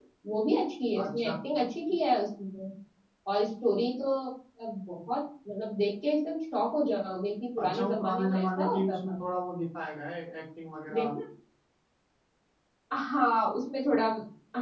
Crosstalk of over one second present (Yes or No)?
Yes